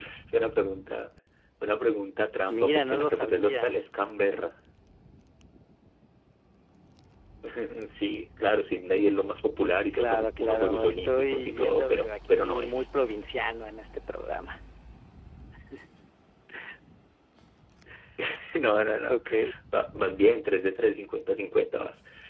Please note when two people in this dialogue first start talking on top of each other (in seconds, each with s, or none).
2.5 s